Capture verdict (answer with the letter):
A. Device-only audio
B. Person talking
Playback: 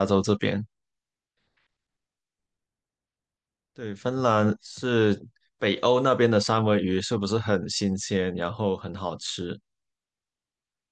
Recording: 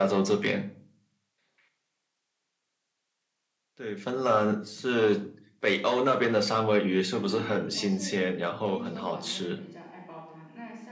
B